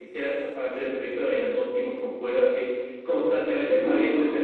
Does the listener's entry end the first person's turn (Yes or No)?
No